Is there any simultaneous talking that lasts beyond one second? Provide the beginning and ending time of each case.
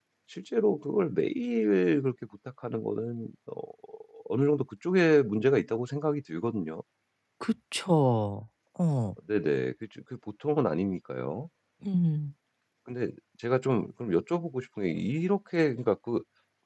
none

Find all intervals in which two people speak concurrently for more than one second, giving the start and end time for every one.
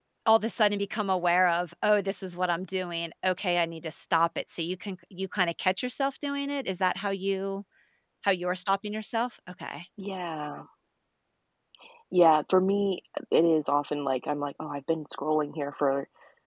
none

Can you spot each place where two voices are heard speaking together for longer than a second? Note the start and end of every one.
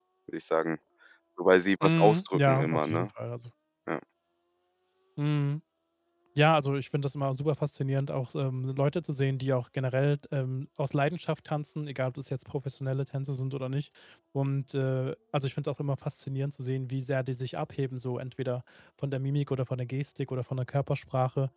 1.8-3.1

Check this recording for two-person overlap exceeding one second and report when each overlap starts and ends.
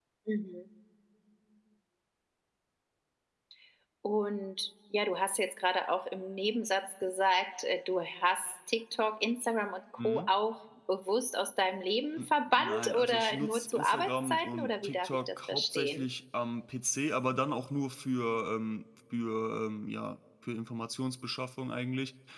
12.2-16.0

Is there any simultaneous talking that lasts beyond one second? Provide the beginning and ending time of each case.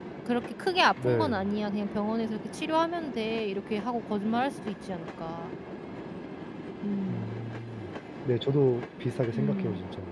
none

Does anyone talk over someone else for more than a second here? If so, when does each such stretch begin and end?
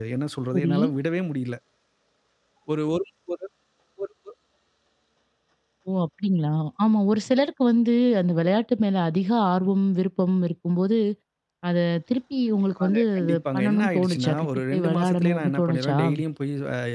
12.8-16.0

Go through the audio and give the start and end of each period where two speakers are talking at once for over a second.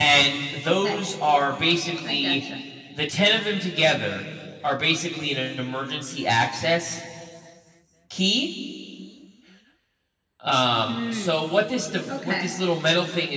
none

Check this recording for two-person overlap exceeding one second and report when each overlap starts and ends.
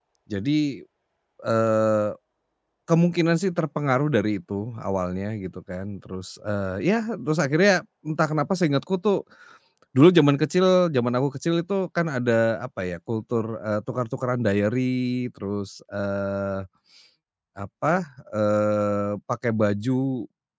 none

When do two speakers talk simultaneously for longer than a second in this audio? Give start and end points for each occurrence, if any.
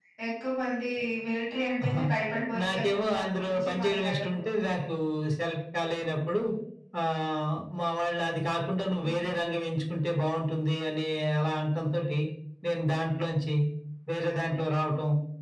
2.6-4.4

